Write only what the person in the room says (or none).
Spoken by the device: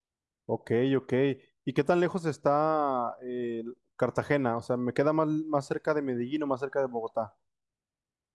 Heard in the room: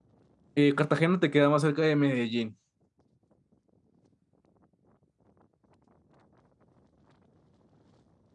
Eh, Cartagena te queda más cerca de Medellín.